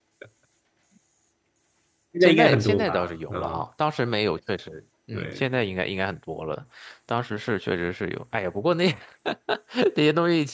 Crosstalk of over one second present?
Yes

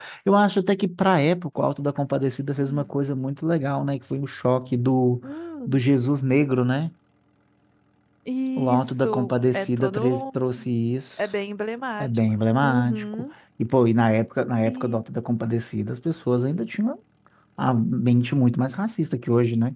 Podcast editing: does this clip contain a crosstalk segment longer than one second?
Yes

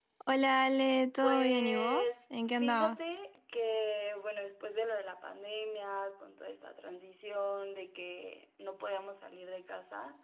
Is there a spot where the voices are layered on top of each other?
Yes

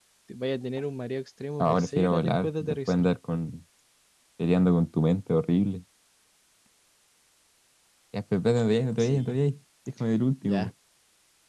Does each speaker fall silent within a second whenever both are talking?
No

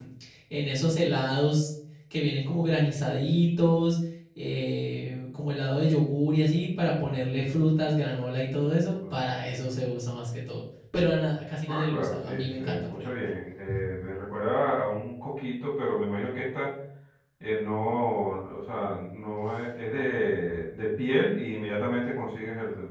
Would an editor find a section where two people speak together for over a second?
Yes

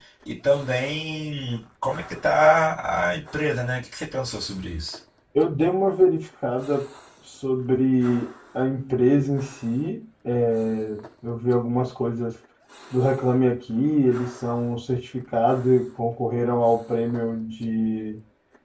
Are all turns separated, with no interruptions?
Yes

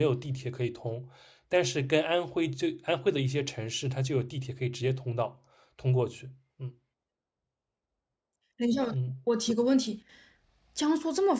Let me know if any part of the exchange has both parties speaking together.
No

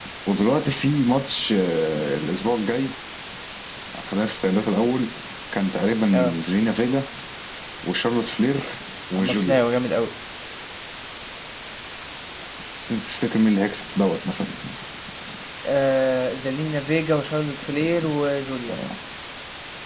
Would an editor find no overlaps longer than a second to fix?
Yes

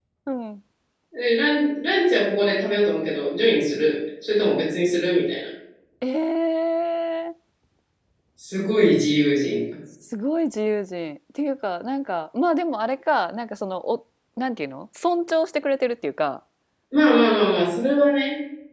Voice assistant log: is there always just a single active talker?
Yes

